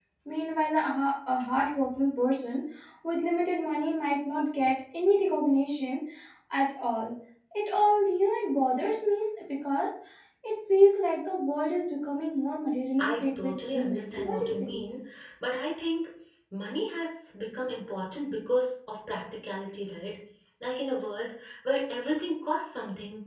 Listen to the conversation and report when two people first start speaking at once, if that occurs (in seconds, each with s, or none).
13.0 s